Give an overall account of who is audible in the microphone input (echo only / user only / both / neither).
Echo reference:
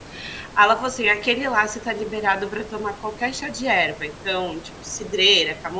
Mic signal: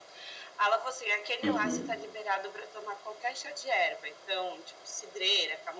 both